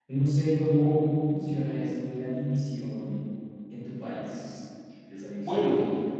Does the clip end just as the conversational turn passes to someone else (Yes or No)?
Yes